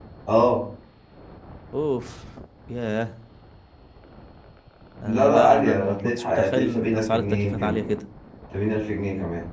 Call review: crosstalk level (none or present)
present